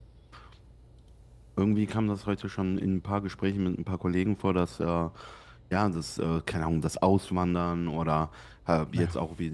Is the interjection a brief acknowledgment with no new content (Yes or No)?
Yes